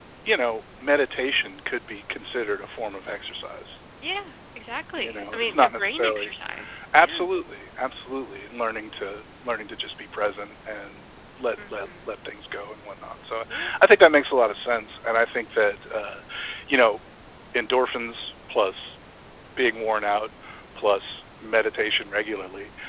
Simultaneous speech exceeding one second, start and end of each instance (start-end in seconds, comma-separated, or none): 5.0-6.3